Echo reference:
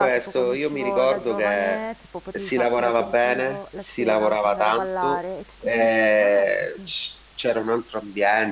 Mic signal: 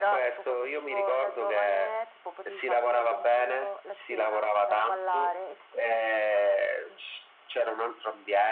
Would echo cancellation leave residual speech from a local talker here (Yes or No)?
No